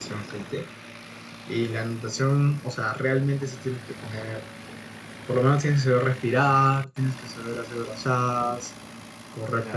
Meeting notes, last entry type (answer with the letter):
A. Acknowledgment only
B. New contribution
B